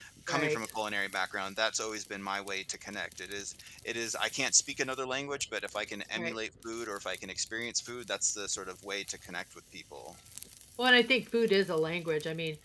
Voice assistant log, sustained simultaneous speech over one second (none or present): none